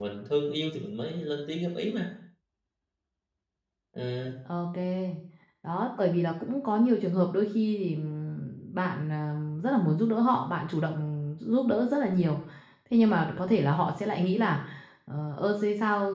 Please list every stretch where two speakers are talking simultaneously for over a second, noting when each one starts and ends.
none

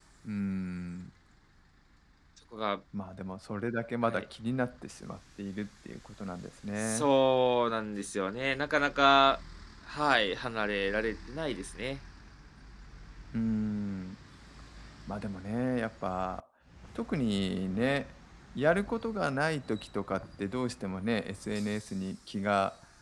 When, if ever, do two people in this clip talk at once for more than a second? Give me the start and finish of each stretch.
none

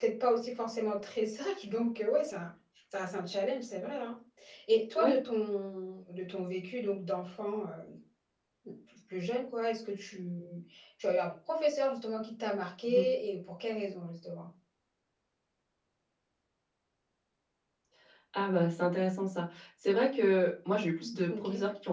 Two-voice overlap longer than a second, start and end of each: none

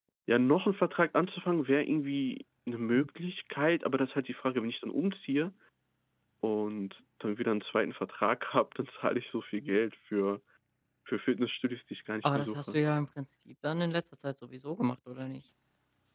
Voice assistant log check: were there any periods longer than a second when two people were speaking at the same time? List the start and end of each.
none

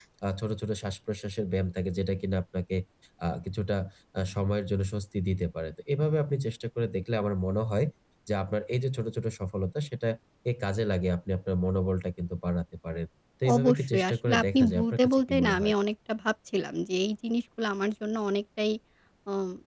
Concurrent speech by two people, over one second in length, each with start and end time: 13.5-15.7

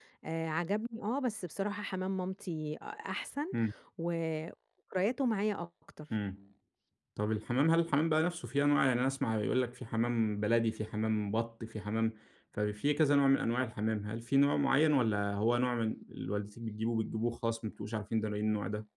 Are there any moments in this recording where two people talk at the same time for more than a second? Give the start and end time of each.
none

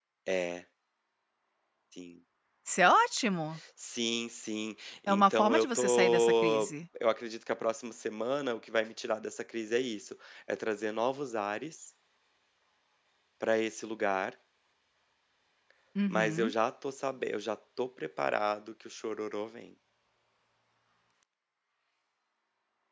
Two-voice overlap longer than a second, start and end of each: 5.1-6.7

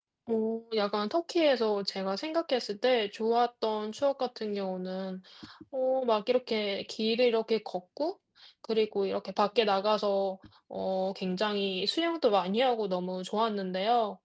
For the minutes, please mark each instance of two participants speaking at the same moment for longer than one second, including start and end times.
none

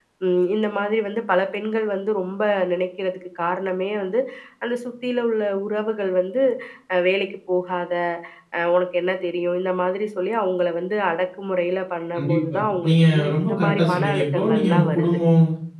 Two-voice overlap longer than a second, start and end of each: 12.2-15.2

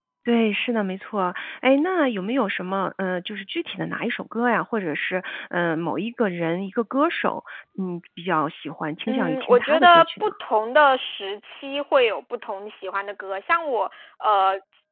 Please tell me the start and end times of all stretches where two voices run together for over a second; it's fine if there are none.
9.1-10.3

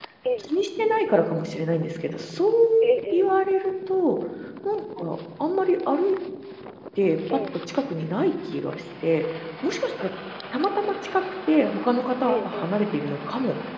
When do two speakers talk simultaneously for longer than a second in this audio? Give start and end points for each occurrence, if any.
none

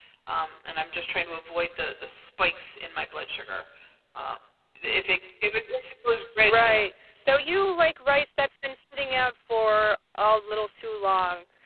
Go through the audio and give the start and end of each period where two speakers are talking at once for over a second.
none

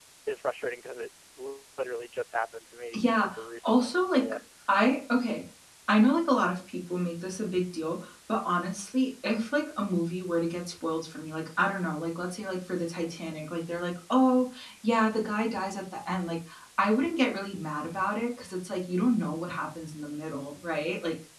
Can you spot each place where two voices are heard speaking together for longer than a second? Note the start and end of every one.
2.9-4.4

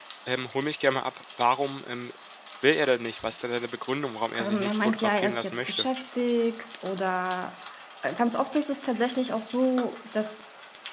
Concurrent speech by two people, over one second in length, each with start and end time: 4.4-5.8

